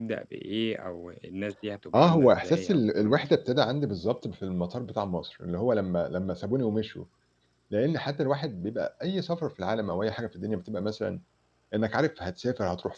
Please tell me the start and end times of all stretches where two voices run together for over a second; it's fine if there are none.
1.9-3.3

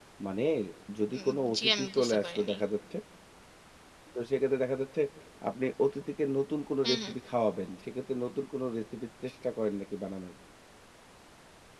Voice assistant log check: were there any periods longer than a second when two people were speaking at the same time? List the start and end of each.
1.2-2.6

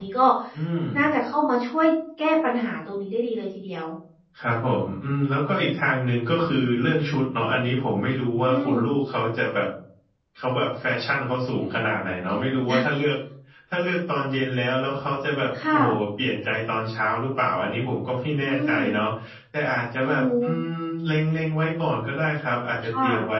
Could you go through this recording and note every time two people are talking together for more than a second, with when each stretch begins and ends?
none

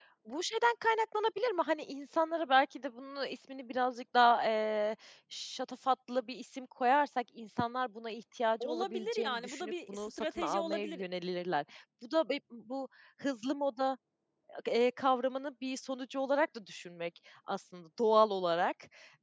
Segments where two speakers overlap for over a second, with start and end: 8.6-11.0

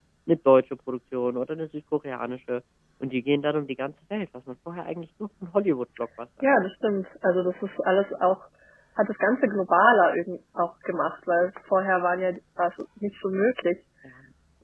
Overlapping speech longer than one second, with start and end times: none

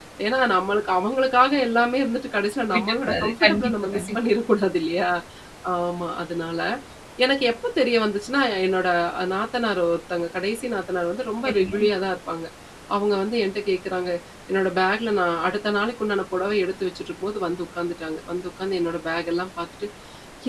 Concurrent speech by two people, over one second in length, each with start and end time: 2.7-4.2

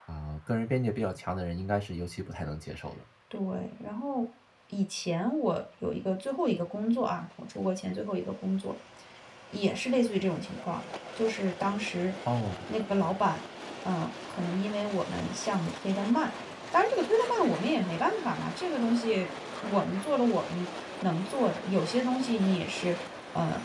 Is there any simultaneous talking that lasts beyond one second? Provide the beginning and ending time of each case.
none

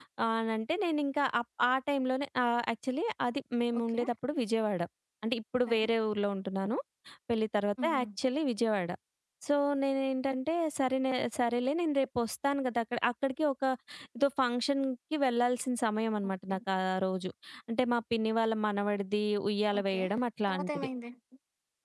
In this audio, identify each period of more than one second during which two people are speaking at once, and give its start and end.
none

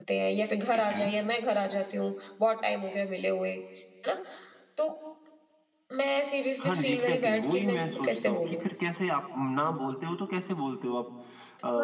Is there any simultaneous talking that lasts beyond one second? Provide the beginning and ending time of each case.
6.6-8.6

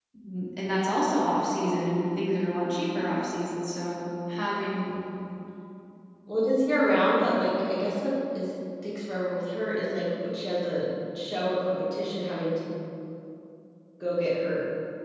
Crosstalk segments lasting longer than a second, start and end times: none

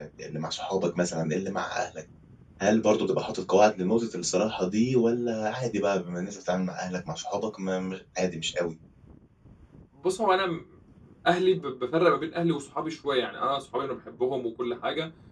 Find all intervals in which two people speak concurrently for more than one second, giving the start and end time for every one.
none

